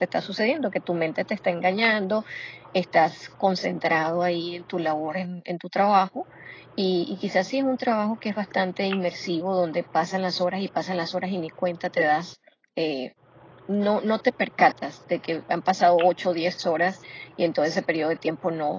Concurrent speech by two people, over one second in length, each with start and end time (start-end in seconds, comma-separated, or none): none